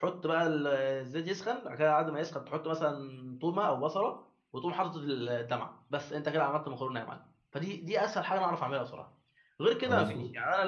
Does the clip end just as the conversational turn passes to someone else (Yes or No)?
No